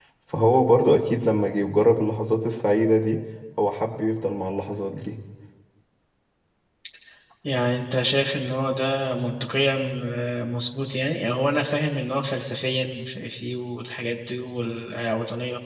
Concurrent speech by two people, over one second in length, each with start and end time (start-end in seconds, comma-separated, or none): none